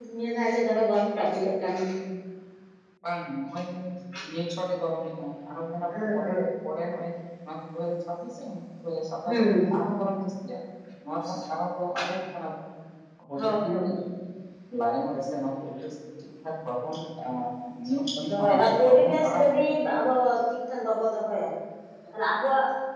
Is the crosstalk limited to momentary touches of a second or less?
No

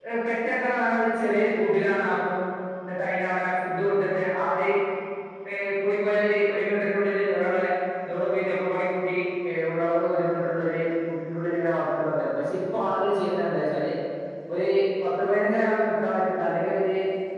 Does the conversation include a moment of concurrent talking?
No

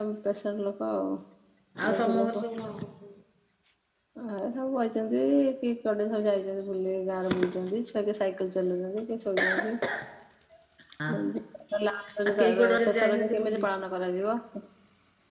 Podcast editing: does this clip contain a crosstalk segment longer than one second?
Yes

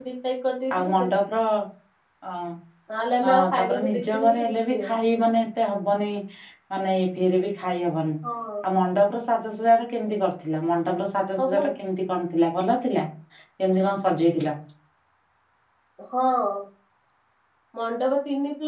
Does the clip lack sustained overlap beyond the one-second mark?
No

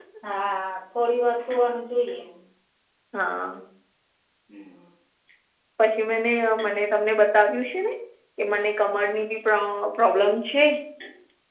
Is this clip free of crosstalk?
Yes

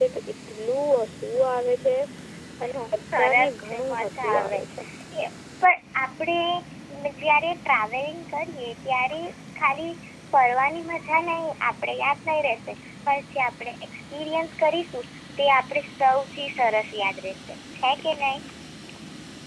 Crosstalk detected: Yes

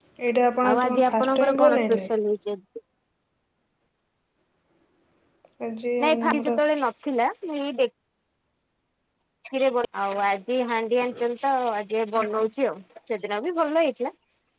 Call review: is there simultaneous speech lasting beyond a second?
Yes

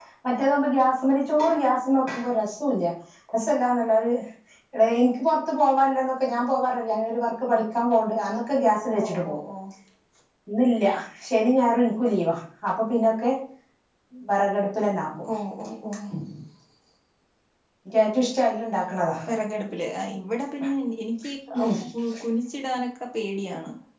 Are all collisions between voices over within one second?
Yes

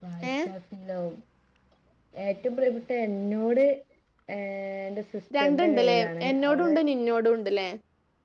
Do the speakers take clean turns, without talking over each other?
No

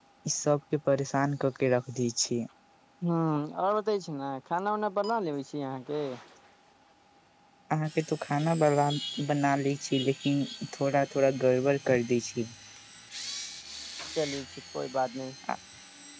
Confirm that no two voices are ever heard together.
Yes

